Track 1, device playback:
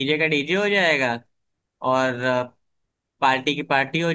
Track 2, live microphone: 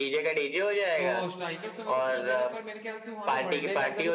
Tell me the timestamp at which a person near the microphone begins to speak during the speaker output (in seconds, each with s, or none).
1.0 s